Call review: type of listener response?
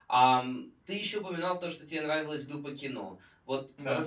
listening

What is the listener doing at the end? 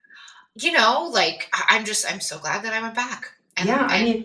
taking over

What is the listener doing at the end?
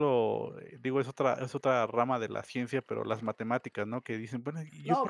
listening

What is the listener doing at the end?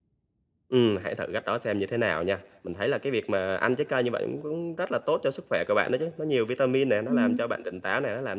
listening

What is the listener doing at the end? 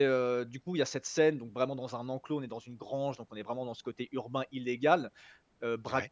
listening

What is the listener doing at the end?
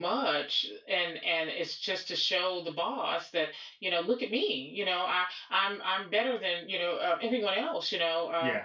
listening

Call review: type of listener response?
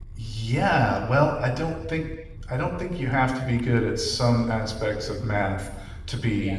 listening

